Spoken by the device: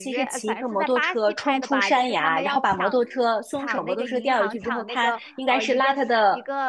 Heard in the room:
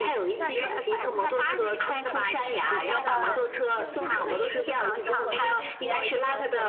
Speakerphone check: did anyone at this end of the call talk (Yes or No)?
Yes